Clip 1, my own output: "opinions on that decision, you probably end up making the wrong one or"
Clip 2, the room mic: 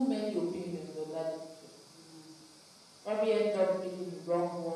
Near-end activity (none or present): none